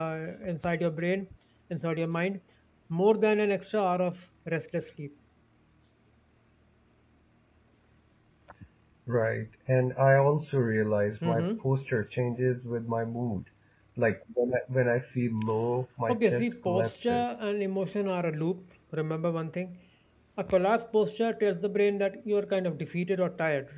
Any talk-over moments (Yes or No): Yes